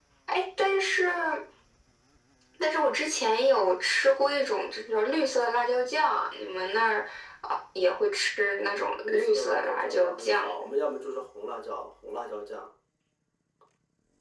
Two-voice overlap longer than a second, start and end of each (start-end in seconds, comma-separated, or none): 9.0-10.5